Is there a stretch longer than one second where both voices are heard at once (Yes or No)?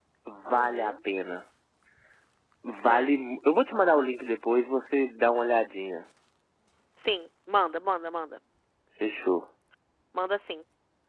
No